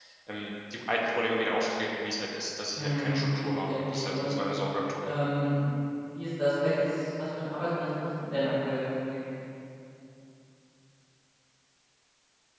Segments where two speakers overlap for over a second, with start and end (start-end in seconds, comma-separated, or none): 2.8-4.3